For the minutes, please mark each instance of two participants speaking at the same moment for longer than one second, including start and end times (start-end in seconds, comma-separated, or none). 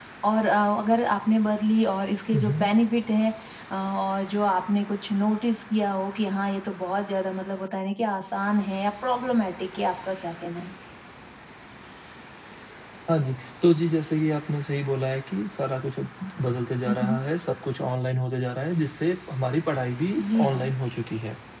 none